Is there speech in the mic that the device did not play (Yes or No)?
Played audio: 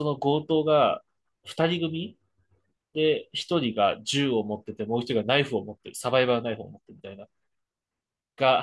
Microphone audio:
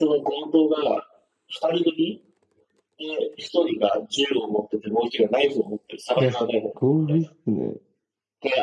Yes